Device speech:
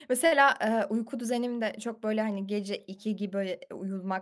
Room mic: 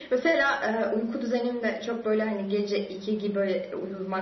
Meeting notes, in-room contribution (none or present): none